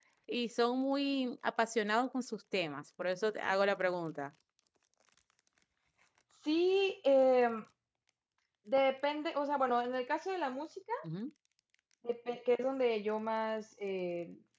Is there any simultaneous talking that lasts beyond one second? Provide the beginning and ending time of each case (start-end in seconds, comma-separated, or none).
none